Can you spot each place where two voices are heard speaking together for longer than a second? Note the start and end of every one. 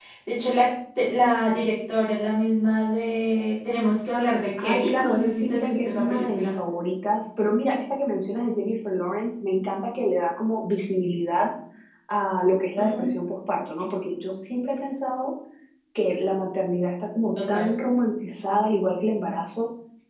4.6-6.5

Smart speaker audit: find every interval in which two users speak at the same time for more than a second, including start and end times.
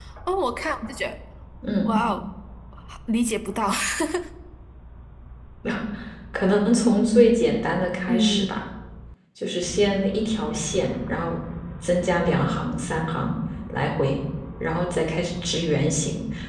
none

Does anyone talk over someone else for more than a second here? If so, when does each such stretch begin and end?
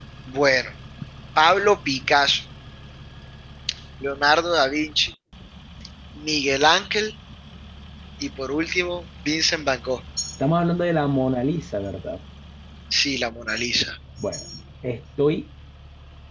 none

